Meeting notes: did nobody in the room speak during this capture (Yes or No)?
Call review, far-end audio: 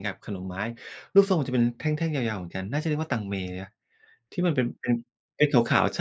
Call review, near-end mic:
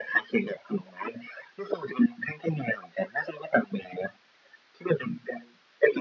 Yes